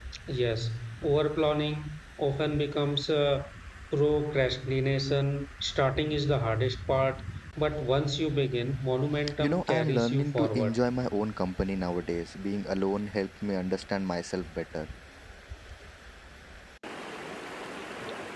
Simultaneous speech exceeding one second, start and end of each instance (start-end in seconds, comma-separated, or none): 9.4-10.8